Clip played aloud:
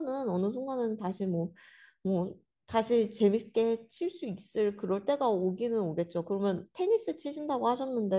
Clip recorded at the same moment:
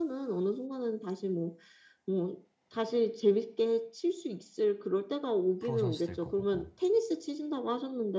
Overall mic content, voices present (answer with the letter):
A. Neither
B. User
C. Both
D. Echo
C